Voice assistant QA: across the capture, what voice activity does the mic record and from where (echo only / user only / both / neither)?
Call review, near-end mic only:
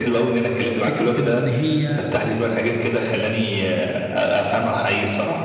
both